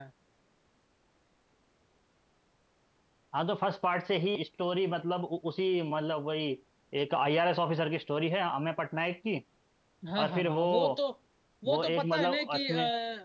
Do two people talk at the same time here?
Yes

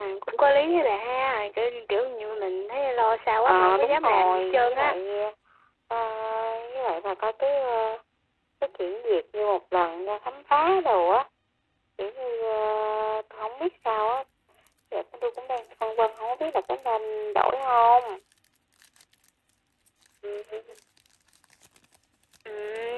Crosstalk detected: Yes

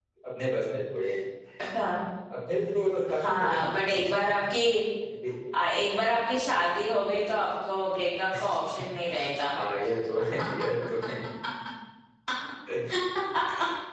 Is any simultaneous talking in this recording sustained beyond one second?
Yes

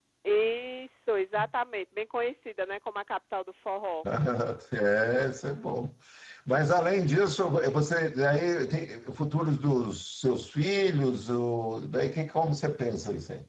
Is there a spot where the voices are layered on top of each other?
No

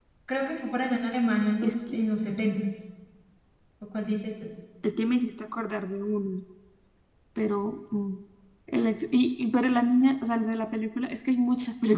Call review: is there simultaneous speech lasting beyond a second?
No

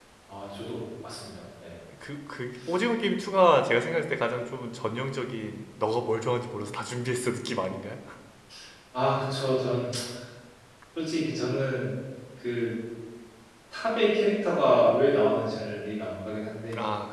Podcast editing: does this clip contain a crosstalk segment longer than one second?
No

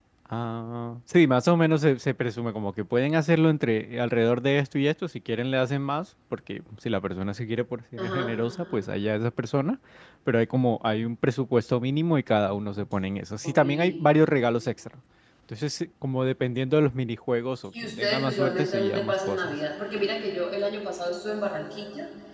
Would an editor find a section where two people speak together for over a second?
Yes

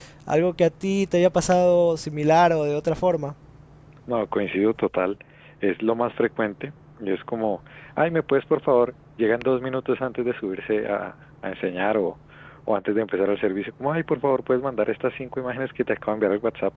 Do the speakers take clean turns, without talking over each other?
Yes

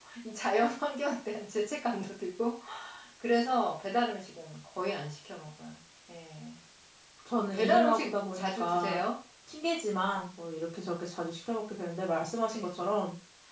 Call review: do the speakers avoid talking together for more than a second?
No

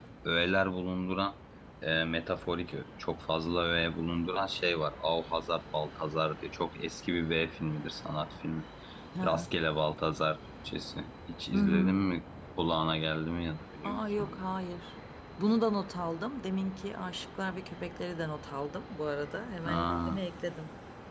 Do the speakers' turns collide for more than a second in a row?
No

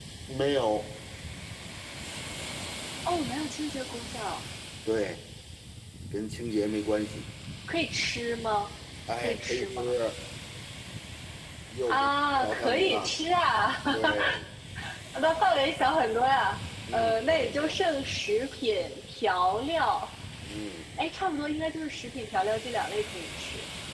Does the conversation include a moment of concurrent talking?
Yes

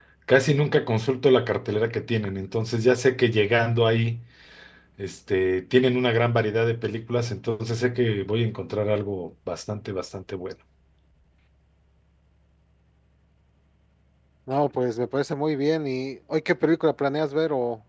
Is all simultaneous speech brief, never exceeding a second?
Yes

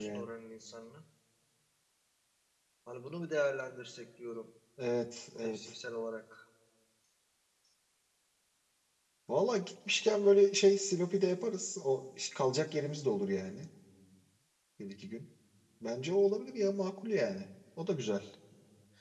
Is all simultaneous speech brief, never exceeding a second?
Yes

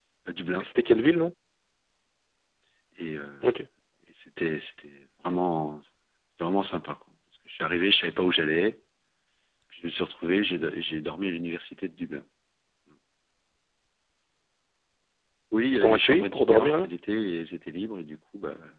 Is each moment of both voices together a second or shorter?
No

